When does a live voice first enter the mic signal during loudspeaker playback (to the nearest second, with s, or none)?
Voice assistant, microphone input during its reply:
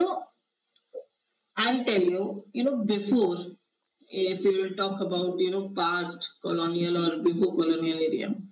none